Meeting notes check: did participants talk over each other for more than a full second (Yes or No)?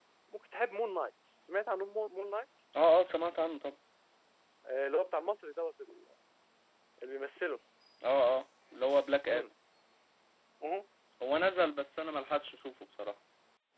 No